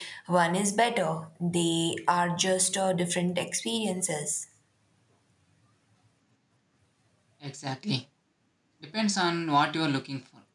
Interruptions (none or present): none